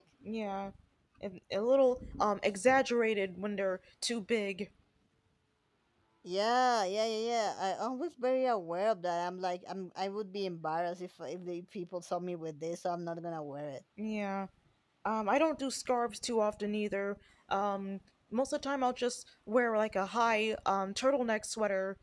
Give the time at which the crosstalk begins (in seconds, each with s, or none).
none